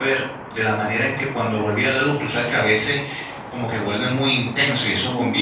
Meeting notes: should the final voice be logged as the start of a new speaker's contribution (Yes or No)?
No